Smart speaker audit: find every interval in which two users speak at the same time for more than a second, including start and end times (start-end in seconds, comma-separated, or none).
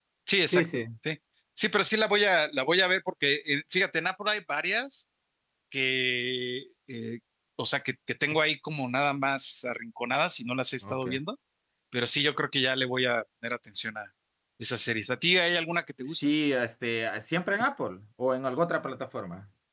none